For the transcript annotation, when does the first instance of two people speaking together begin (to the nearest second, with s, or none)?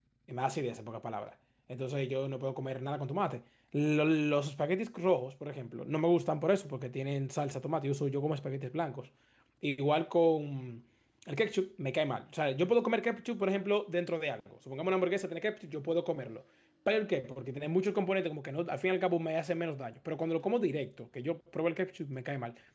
none